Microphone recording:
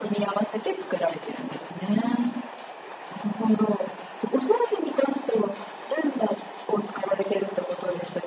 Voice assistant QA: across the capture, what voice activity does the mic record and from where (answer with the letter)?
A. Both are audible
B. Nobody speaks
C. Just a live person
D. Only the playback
D